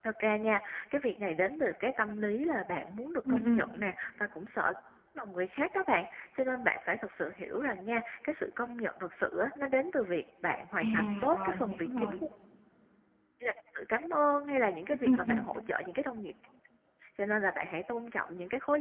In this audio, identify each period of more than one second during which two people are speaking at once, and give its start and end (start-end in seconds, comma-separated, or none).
10.8-12.2